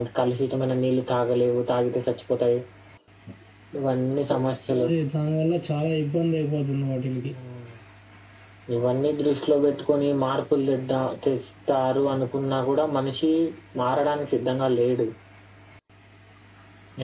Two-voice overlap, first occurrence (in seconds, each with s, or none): none